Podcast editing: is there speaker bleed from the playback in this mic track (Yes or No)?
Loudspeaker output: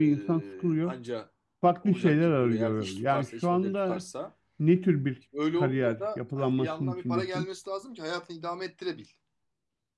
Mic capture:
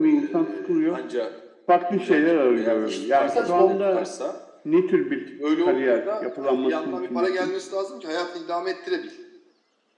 Yes